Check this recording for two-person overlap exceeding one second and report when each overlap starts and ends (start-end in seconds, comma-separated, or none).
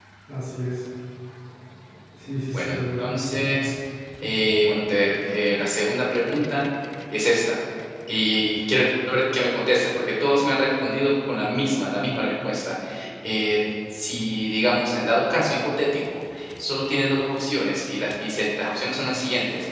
none